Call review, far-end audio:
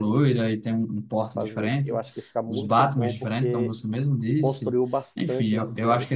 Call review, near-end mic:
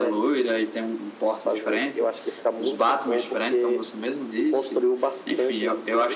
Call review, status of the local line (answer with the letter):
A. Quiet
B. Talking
A